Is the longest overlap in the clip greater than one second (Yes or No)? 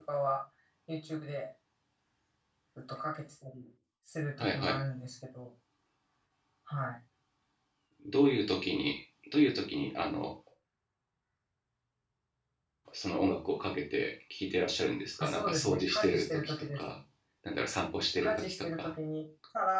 Yes